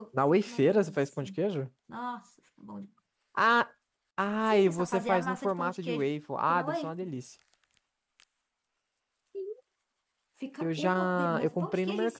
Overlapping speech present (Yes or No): Yes